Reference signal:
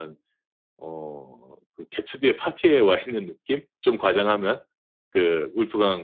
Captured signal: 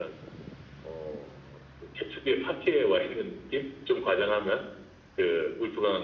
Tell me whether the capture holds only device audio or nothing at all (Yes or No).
Yes